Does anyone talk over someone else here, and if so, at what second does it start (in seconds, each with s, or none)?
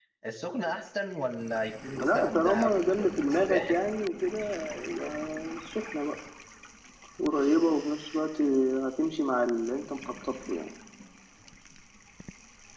1.9 s